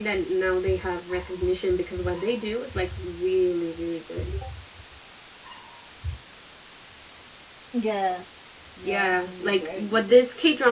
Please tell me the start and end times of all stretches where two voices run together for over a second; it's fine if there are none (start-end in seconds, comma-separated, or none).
8.8-10.1